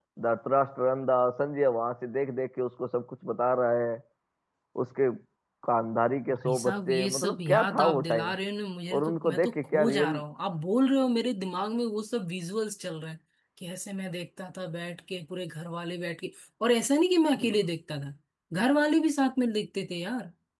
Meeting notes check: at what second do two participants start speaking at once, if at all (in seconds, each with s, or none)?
6.3 s